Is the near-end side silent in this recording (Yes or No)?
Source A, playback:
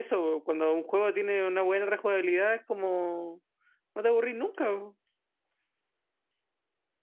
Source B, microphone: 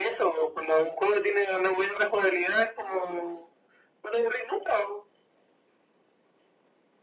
Yes